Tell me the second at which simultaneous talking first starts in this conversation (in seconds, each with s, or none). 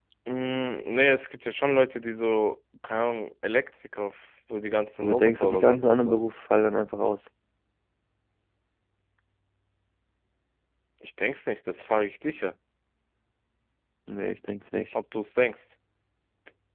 5.0 s